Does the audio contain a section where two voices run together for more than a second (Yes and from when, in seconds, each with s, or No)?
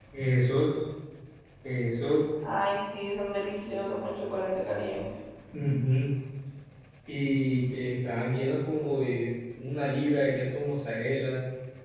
No